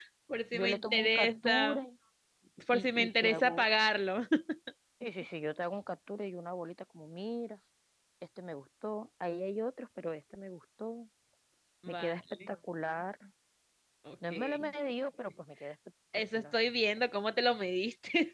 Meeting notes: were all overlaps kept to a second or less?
No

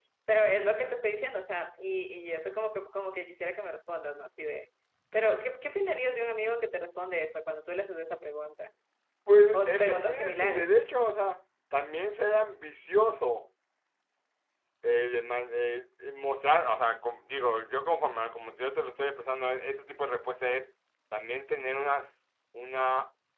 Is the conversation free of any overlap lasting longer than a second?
No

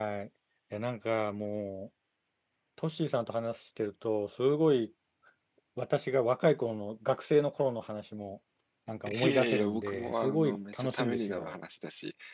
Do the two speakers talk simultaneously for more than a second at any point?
Yes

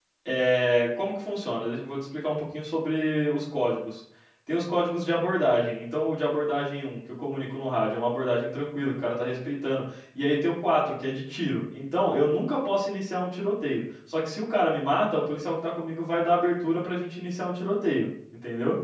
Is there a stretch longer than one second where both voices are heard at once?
No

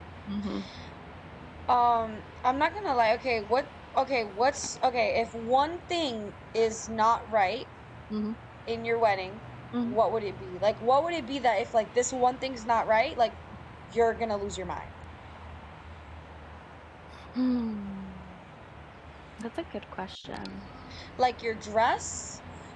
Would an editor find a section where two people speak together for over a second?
No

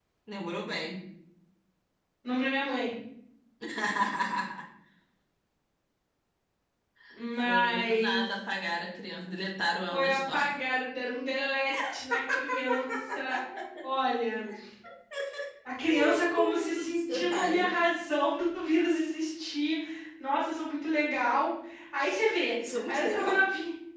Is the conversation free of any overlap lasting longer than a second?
No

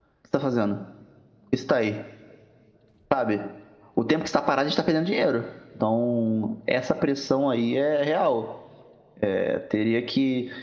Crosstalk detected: No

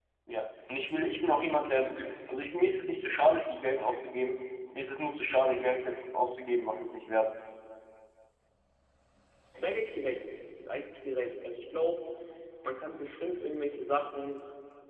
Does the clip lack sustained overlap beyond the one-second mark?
Yes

